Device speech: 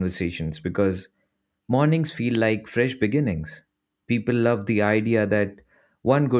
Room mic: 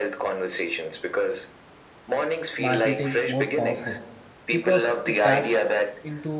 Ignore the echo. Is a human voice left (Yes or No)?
Yes